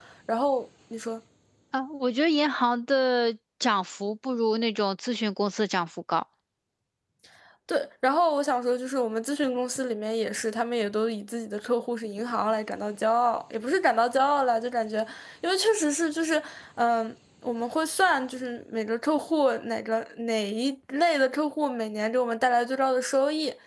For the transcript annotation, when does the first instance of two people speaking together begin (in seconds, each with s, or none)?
none